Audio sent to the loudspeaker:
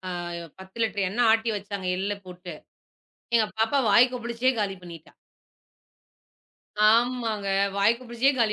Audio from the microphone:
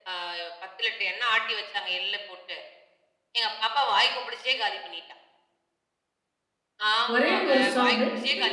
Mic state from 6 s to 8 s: both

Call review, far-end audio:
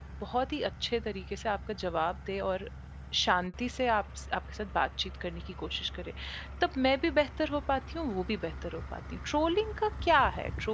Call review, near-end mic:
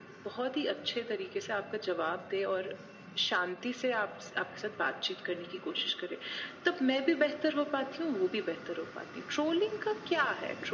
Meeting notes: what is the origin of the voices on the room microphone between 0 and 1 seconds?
echo only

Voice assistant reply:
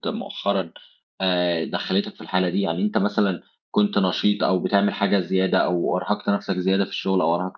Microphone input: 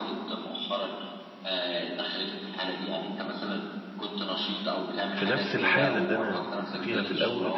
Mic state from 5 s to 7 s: both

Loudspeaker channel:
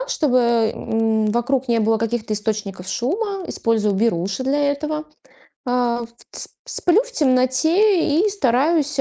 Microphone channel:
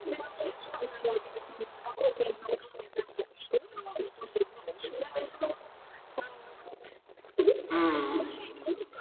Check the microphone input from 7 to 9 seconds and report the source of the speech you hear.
both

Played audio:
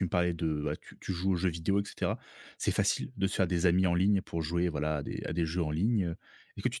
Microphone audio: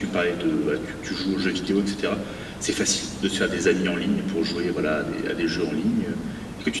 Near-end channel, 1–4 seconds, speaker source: echo only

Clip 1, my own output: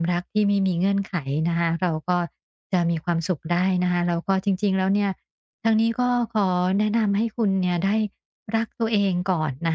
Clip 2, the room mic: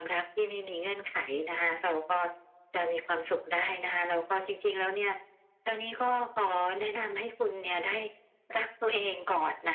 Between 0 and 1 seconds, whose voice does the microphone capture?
echo only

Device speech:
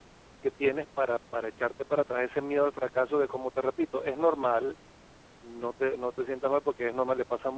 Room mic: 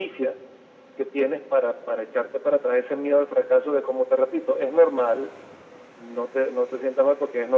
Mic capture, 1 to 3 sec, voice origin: echo only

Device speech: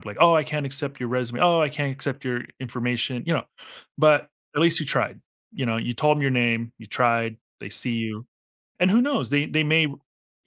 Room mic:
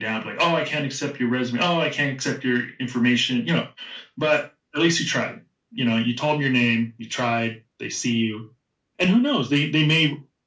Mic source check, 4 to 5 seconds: echo only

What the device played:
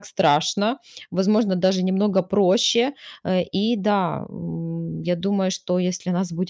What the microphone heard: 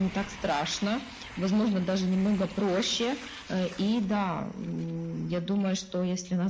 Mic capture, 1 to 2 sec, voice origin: echo only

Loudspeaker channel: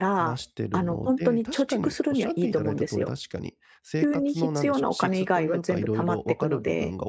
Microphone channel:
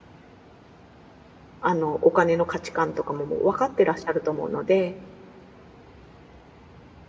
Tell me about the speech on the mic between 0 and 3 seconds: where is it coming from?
user only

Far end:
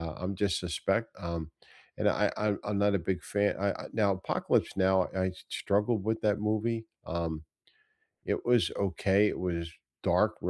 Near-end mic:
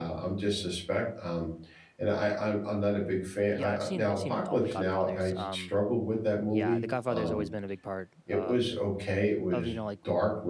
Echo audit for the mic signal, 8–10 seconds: both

